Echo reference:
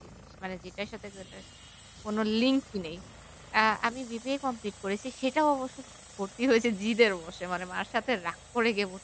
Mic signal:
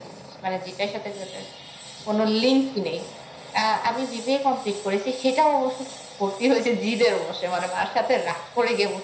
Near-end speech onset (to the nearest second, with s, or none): none